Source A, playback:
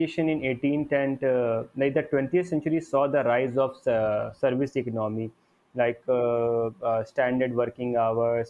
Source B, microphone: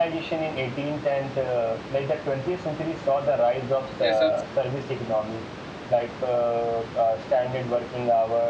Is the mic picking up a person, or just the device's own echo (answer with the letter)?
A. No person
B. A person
B